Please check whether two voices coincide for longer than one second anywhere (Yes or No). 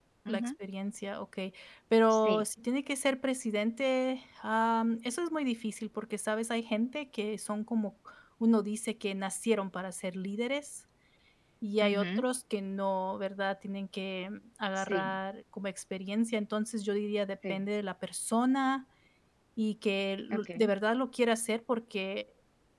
No